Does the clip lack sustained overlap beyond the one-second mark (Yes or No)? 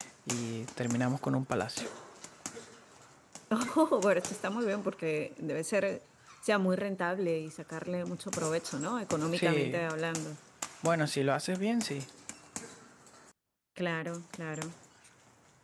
Yes